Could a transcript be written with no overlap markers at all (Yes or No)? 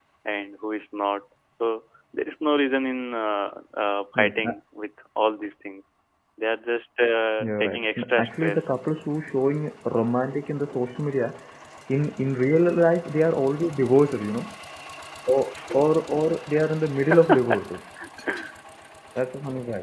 No